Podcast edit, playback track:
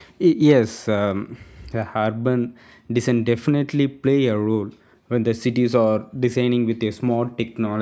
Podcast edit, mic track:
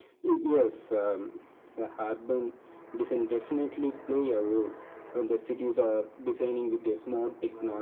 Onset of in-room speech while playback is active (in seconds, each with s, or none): none